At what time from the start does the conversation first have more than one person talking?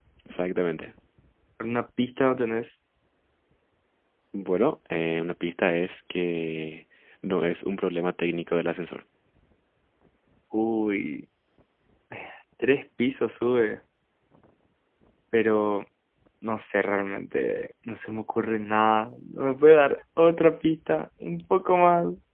none

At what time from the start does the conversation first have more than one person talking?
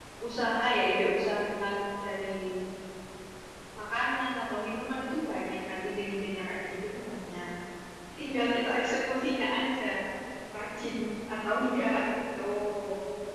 none

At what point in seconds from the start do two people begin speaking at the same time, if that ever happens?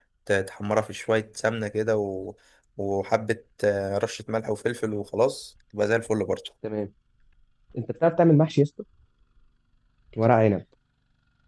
none

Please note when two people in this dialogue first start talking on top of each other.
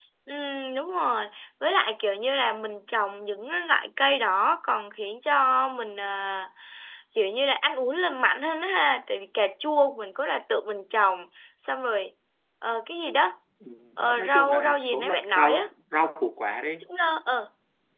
14.2 s

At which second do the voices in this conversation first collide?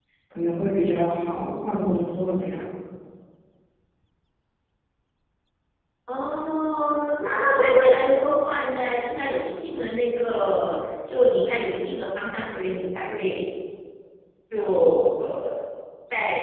none

